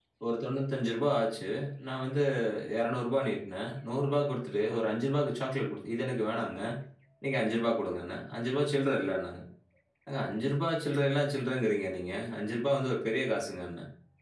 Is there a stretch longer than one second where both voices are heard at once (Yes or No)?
No